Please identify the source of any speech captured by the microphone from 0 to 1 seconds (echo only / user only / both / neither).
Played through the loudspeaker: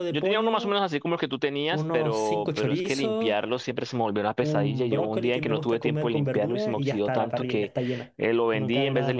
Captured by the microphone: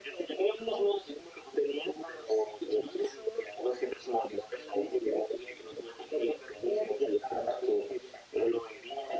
echo only